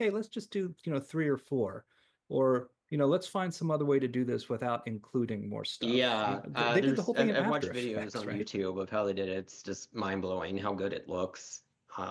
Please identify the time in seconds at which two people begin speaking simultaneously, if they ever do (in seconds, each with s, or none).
5.8 s